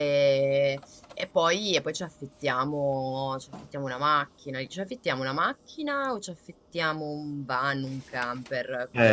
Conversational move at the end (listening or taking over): taking over